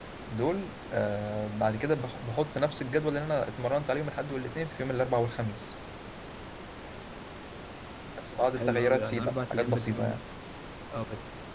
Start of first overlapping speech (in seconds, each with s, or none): 8.5 s